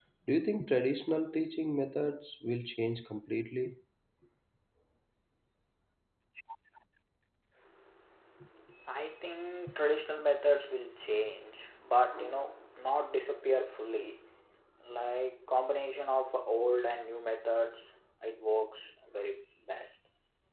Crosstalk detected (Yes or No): No